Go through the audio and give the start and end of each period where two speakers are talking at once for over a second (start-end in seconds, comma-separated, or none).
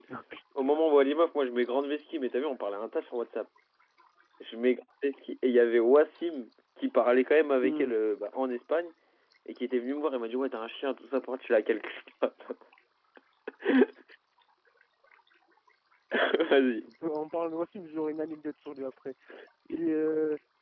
none